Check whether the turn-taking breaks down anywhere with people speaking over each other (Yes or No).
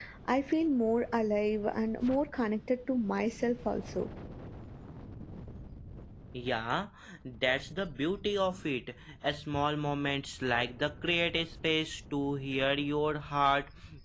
No